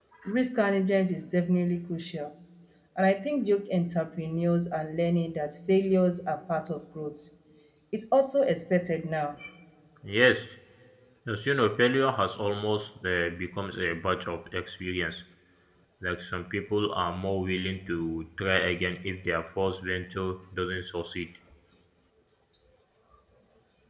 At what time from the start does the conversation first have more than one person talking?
none

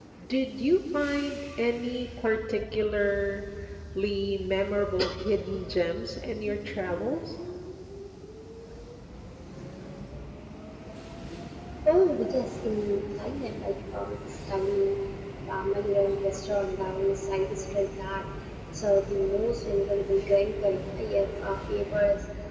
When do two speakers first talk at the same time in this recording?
none

